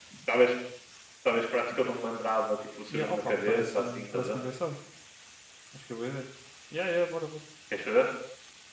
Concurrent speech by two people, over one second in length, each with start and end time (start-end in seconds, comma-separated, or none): 2.9-4.4